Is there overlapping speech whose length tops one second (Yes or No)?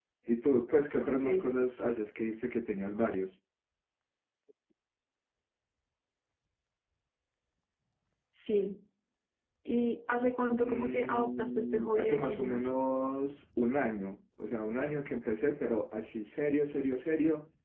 Yes